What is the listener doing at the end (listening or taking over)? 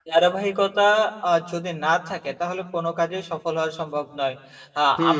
taking over